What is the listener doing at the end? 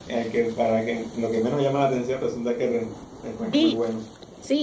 taking over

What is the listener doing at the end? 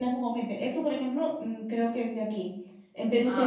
listening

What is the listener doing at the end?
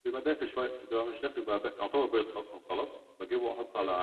listening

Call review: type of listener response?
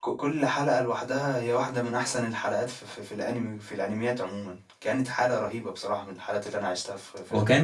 taking over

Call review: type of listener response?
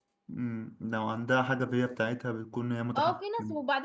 taking over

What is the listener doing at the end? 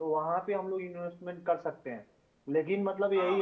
listening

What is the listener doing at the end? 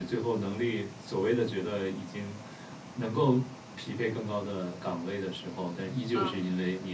listening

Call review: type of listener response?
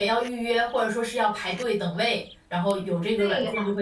taking over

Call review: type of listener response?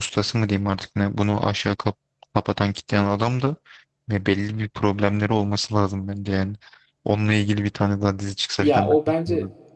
taking over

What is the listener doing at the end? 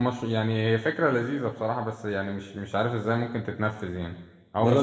listening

